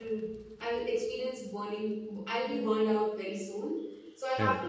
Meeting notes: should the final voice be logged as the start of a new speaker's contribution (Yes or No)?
No